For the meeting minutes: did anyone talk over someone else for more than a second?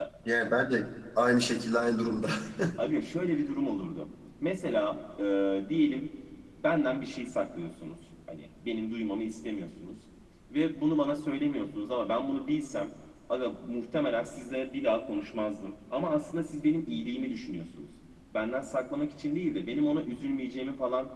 No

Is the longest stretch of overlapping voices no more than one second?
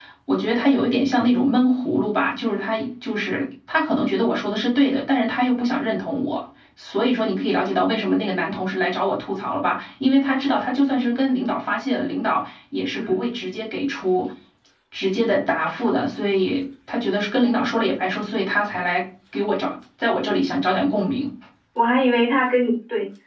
Yes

